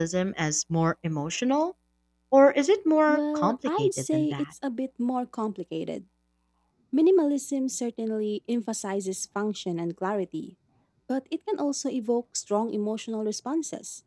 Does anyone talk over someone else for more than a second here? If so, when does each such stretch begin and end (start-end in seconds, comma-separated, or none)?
3.1-4.4